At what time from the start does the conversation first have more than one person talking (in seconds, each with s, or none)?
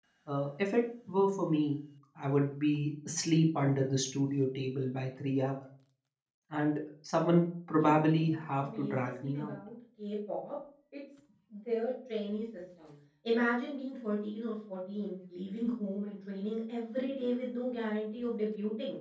7.8 s